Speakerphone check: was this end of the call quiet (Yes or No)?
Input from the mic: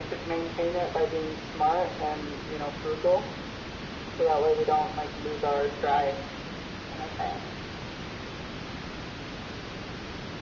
Yes